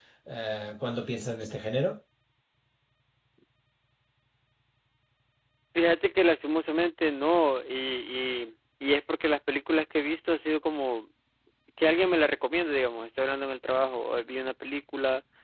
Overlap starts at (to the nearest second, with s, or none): none